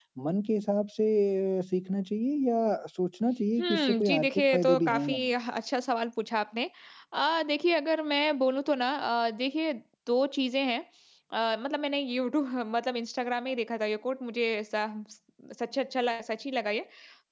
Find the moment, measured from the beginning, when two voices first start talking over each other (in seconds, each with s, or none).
3.6 s